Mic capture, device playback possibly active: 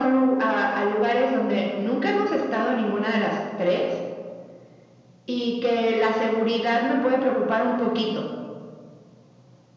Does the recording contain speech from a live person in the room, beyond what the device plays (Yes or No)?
No